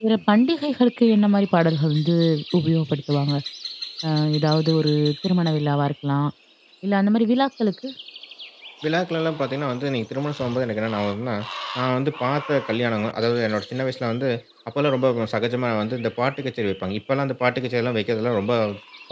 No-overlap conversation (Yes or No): Yes